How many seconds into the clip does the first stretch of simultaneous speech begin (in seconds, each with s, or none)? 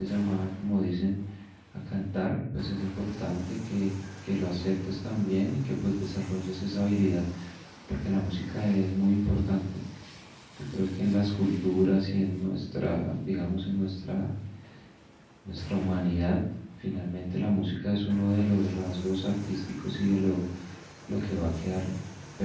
none